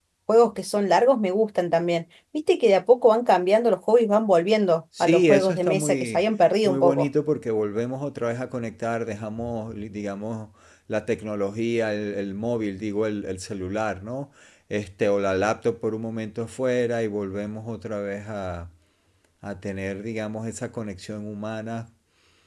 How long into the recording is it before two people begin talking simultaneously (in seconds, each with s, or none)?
5.0 s